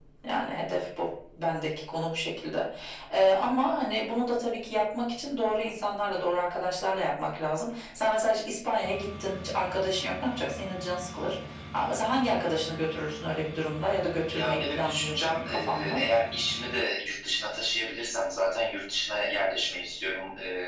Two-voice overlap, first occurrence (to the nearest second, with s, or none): 14 s